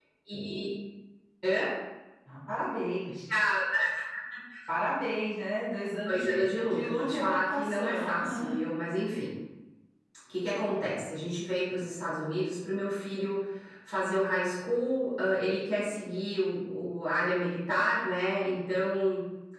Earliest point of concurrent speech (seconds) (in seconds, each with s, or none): 6.1 s